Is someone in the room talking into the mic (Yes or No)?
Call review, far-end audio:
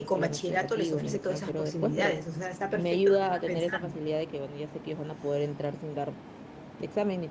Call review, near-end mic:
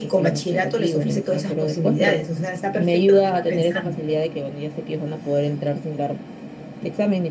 No